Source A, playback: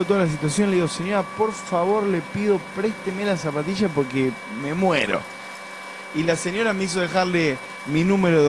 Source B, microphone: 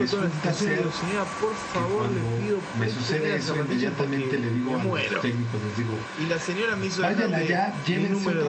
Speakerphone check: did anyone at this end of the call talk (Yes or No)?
Yes